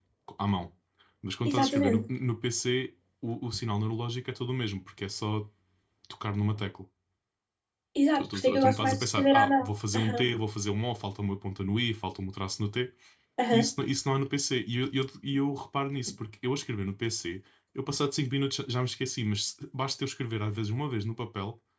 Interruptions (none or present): present